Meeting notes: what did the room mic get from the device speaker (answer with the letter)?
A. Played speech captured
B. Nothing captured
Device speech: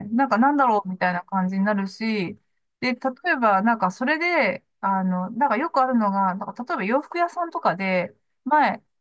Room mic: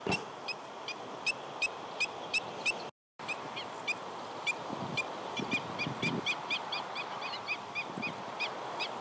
B